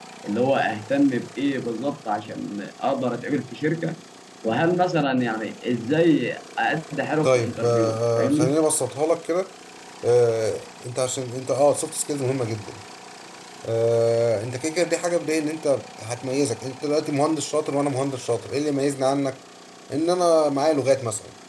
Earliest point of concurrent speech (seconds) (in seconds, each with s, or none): 7.2 s